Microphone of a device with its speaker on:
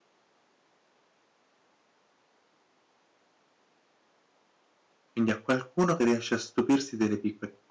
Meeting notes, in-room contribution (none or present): present